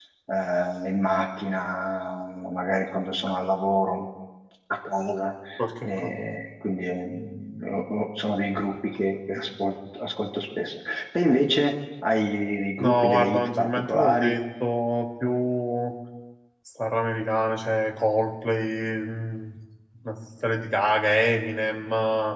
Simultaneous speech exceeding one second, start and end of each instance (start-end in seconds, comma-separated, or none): 12.8-14.4